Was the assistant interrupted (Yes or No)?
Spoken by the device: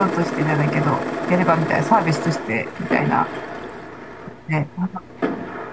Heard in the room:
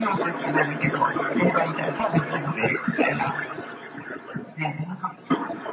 No